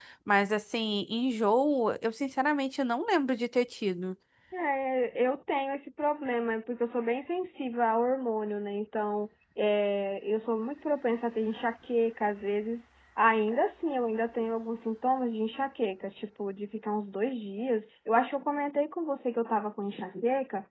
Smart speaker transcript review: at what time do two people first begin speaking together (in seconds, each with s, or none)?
none